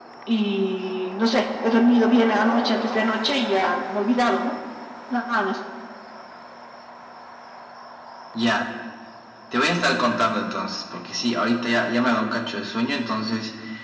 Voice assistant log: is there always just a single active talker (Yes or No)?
Yes